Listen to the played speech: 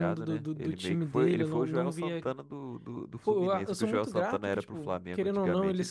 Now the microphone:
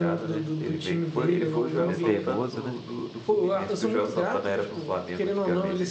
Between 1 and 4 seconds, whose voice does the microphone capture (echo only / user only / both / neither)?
both